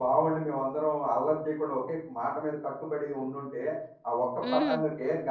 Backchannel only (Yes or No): Yes